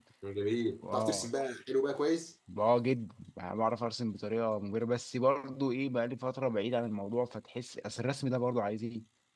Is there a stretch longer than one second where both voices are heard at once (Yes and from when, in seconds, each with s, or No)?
No